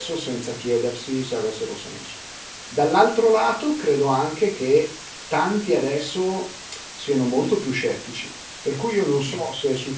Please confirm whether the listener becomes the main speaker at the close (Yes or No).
No